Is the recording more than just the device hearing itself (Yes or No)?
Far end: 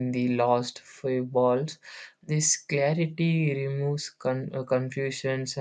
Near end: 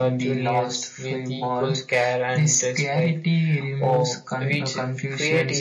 Yes